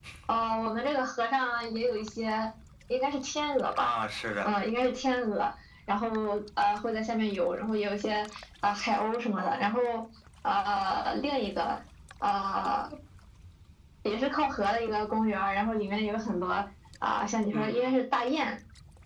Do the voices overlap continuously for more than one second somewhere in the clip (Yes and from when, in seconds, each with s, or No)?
No